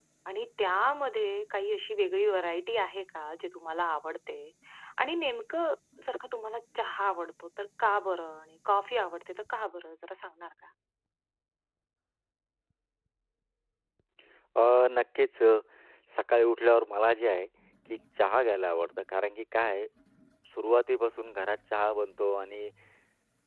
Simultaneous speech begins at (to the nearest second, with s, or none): none